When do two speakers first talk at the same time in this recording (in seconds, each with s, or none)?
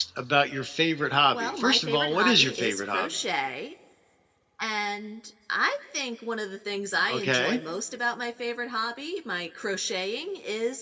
1.3 s